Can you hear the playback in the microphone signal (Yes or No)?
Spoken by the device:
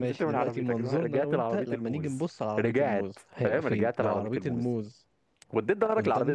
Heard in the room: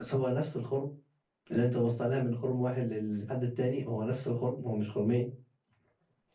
No